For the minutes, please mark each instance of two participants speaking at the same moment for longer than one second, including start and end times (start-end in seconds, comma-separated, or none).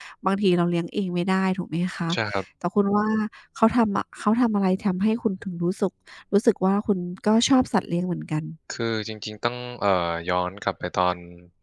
none